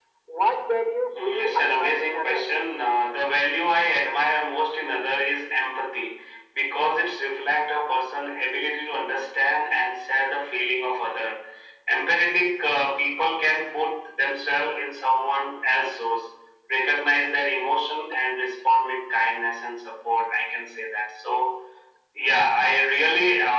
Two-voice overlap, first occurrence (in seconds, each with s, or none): 1.1 s